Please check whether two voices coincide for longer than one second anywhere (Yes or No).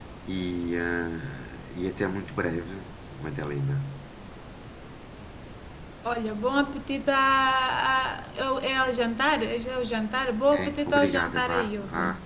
Yes